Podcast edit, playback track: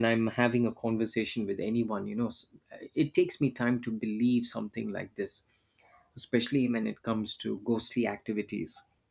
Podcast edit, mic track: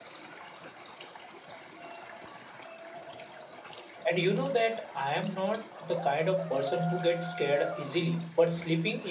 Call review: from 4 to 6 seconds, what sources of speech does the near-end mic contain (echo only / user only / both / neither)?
user only